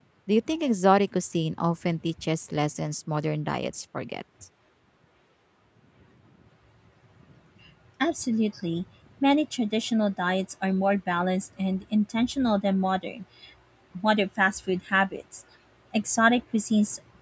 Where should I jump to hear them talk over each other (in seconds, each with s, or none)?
none